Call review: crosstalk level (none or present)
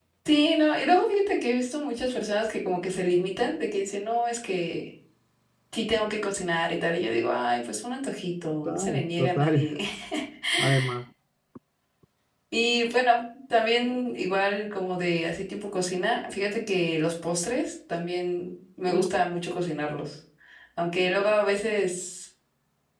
present